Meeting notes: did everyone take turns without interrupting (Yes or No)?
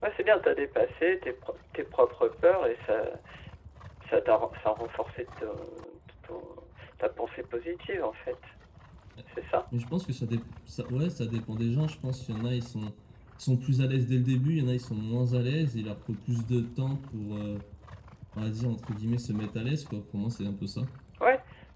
Yes